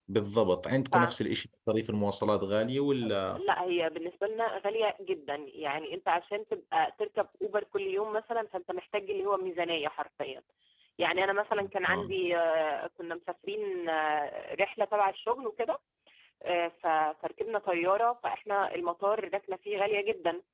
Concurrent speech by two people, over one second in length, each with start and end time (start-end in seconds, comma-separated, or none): none